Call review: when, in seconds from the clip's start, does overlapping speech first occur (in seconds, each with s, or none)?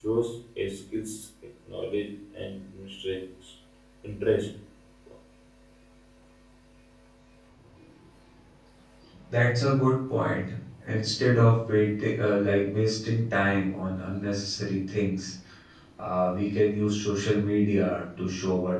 none